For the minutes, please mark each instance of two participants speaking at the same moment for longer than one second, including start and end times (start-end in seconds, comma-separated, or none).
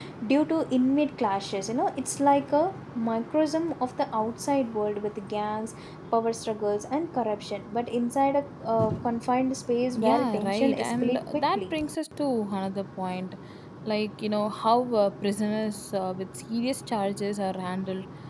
9.9-11.7